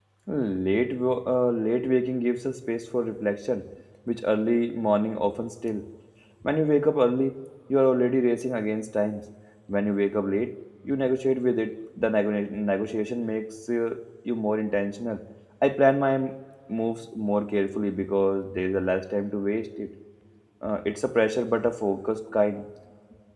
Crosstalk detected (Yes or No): No